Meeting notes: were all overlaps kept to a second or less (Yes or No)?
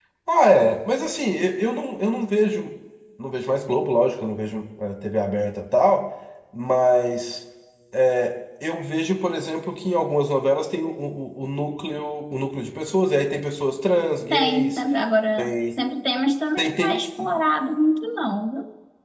Yes